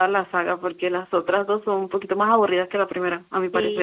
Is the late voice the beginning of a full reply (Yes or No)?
Yes